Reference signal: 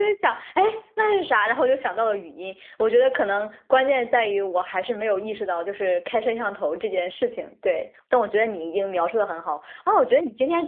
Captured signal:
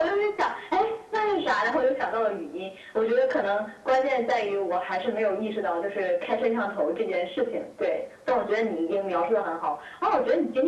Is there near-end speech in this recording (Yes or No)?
No